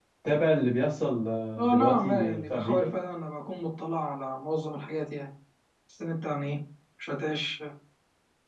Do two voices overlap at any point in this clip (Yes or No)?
Yes